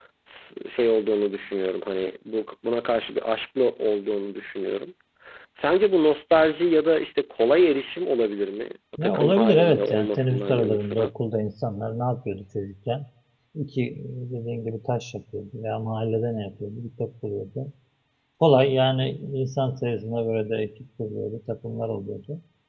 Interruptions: present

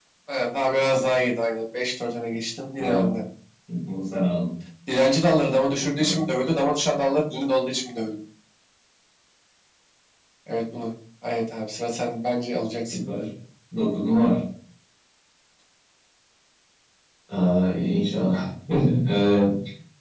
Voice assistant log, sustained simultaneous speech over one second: none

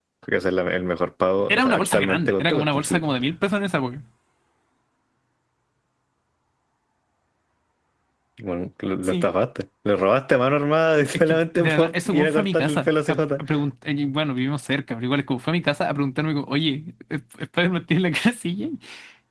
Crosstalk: present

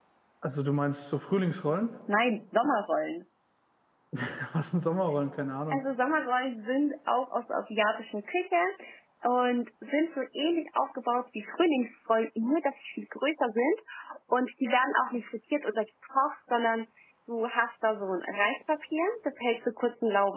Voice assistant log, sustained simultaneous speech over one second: none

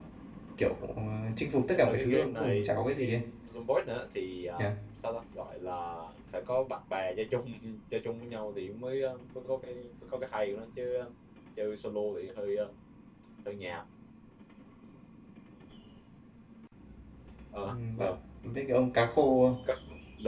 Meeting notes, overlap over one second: present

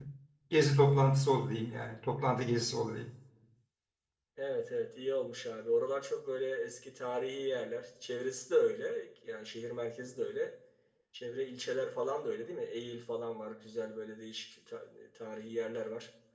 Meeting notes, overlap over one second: none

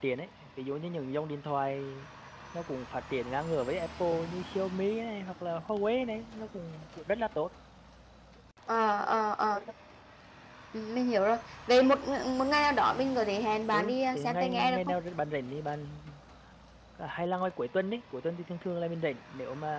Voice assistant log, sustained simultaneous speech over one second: present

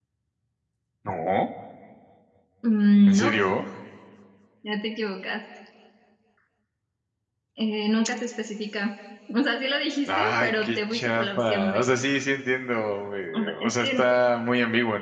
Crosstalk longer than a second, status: present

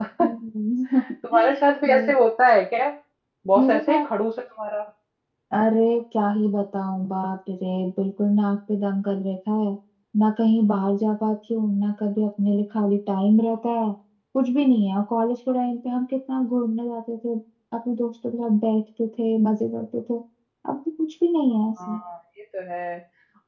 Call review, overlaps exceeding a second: none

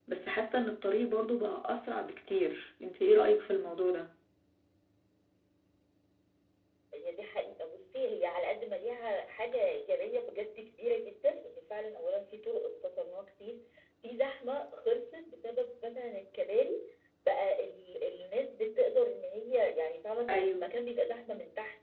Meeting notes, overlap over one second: none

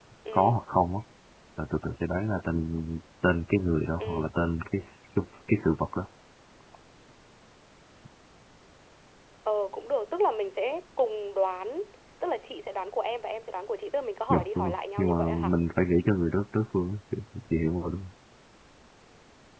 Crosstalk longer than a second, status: present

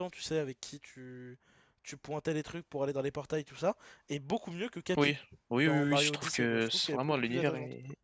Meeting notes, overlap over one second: present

